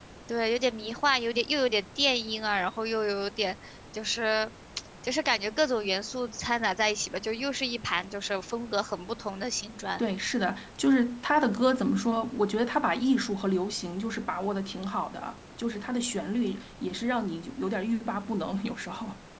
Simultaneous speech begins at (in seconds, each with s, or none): none